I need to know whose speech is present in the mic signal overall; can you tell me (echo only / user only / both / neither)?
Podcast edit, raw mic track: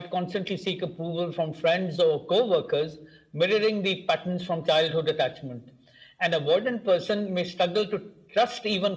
echo only